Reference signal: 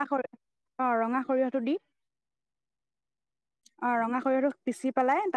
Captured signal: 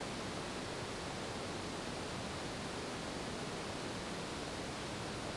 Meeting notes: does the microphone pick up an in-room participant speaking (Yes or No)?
No